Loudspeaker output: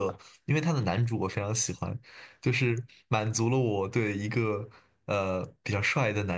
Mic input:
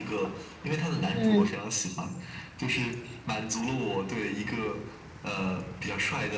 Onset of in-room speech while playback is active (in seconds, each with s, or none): 1.2 s